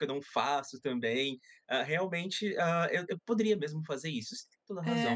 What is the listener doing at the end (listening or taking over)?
taking over